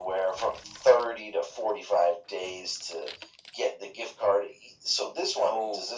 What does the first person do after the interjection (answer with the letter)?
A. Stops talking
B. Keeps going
B